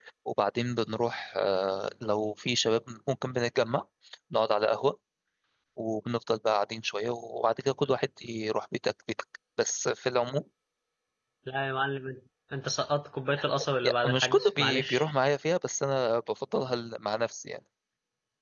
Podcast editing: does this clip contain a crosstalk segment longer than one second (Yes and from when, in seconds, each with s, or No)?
Yes, from 13.8 s